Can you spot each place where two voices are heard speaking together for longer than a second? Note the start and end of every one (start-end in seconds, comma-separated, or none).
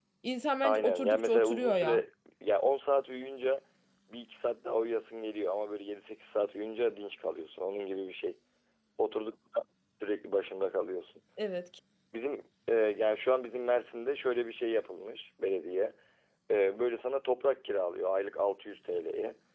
0.6-2.0